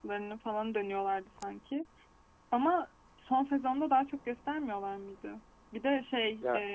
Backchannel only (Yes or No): Yes